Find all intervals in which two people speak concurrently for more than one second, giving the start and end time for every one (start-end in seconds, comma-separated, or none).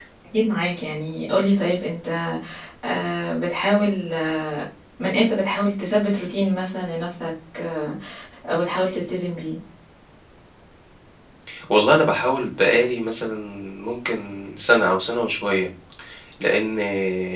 none